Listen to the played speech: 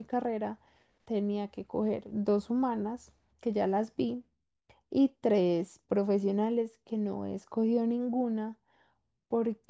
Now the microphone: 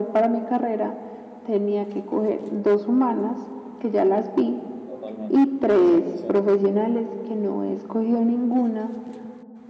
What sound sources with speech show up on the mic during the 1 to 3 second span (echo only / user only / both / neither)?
echo only